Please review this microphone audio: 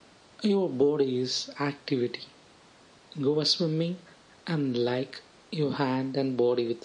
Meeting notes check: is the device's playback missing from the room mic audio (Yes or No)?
No